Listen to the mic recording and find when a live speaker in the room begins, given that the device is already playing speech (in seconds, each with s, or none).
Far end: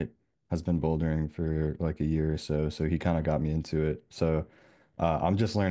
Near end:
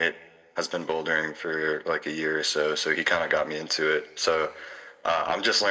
none